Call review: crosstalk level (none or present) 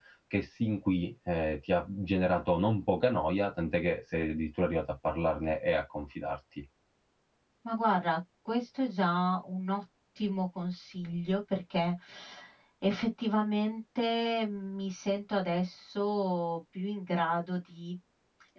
none